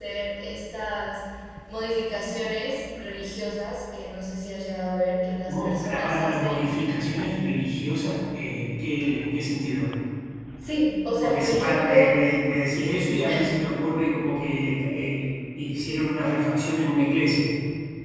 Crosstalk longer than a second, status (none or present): present